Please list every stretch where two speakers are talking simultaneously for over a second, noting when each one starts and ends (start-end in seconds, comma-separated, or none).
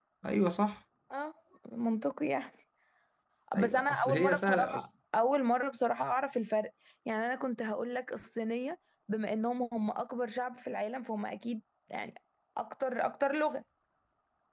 3.6-4.9